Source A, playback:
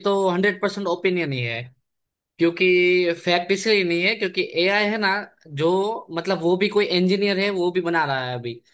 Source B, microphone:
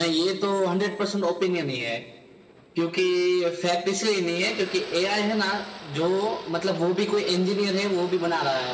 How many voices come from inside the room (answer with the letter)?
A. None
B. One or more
A